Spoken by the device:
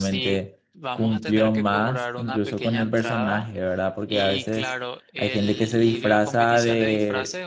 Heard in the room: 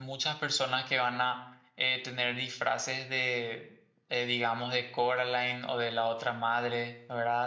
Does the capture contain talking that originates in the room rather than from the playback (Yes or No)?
Yes